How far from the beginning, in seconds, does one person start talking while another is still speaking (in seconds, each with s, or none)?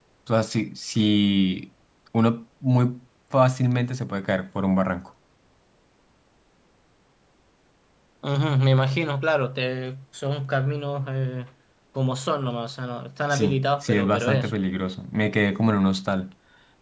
13.3 s